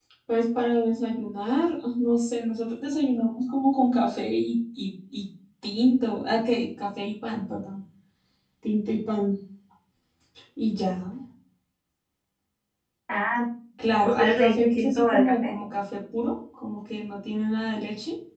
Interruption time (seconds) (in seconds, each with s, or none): 14.2 s